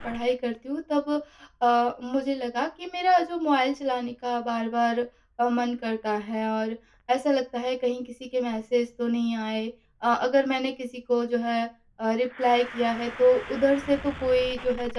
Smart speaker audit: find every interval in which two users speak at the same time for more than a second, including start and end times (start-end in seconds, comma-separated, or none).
none